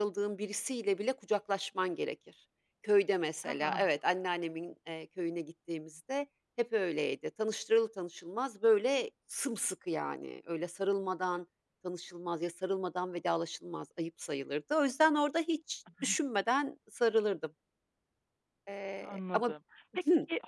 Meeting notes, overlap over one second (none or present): none